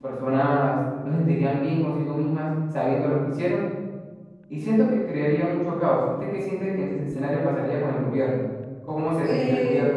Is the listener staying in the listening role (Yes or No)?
No